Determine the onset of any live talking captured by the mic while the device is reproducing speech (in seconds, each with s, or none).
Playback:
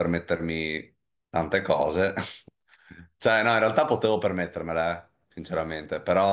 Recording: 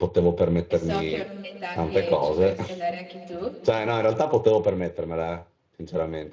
0.7 s